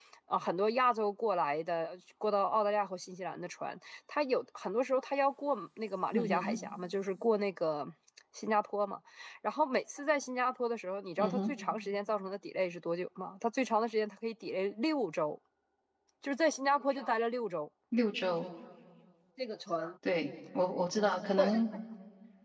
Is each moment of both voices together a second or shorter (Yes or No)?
Yes